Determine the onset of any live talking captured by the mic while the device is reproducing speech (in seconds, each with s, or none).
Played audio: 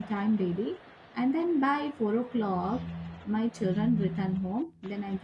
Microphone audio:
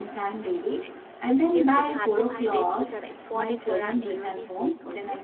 0.8 s